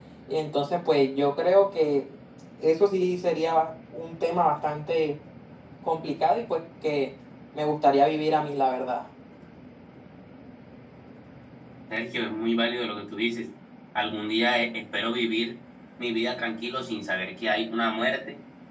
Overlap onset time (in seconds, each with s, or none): none